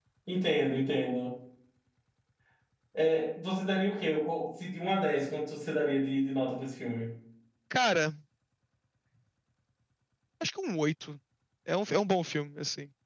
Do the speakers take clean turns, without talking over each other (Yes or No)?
Yes